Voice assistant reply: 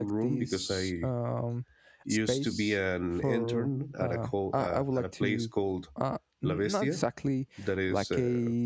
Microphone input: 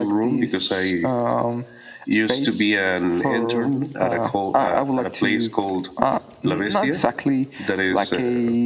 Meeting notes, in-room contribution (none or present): none